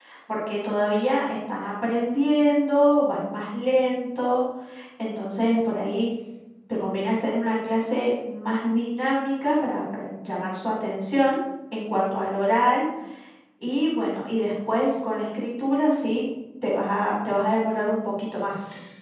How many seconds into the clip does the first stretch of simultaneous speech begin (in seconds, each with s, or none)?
none